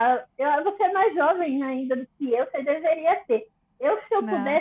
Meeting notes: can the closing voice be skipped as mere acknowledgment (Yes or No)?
Yes